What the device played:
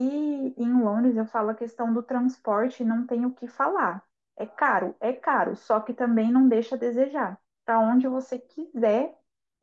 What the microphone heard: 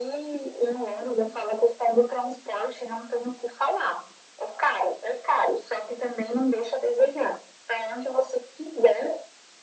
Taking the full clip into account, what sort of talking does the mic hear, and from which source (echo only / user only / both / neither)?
echo only